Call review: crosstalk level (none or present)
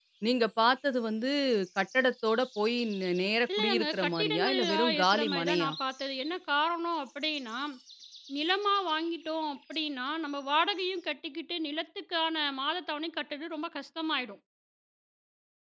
present